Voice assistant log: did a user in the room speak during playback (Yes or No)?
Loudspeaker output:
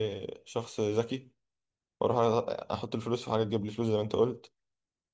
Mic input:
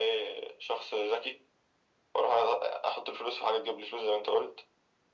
No